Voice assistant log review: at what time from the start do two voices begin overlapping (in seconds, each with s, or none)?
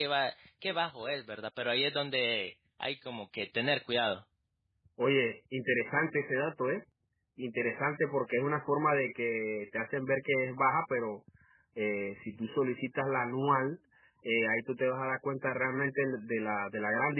none